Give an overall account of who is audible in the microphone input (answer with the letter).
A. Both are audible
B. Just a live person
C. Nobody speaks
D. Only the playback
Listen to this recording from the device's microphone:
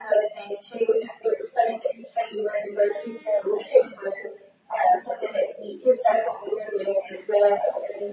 D